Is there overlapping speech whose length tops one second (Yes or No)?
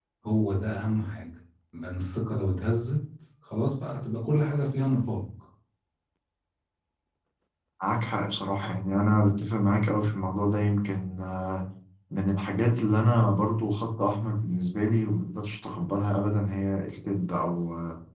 No